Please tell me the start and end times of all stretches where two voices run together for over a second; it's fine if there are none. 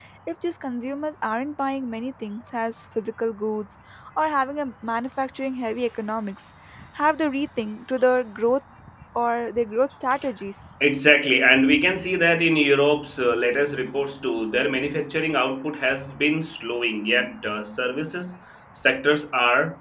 none

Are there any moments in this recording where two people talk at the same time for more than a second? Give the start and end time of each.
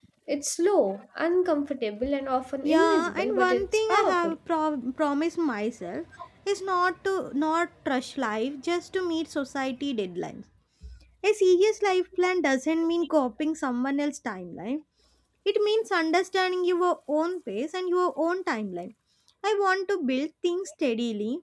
2.6-4.3

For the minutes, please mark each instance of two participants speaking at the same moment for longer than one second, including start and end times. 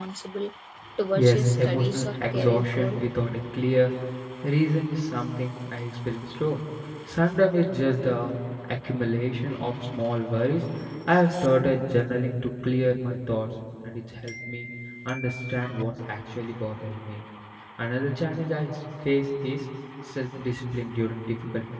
1.1-3.0

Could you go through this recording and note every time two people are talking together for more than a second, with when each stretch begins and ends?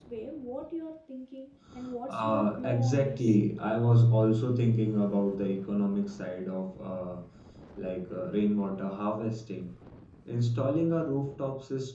2.1-3.4

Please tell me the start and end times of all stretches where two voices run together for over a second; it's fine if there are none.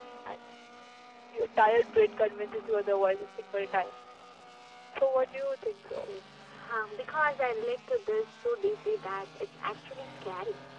none

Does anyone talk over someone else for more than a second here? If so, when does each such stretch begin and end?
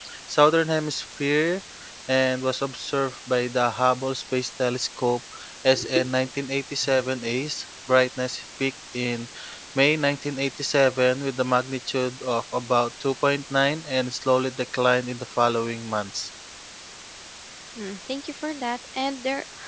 none

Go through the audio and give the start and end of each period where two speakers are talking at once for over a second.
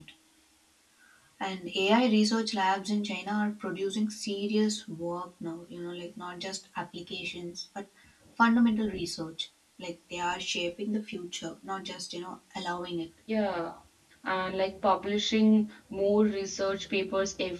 none

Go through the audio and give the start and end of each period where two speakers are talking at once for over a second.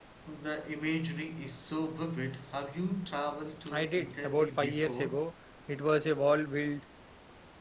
3.7-5.2

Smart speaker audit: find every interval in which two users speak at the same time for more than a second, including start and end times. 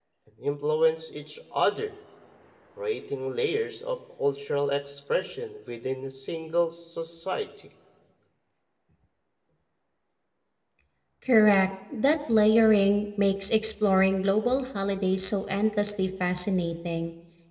none

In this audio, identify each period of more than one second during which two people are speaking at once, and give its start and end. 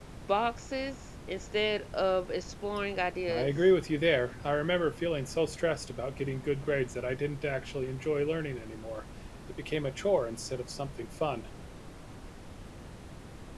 none

